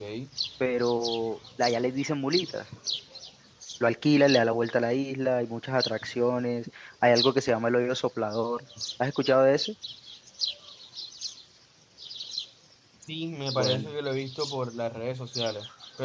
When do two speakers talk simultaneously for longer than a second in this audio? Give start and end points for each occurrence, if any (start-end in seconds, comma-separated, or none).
none